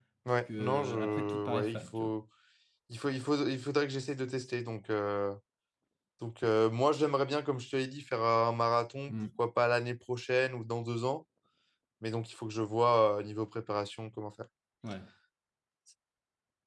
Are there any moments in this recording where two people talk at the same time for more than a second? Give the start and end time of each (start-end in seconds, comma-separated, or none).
0.6-2.1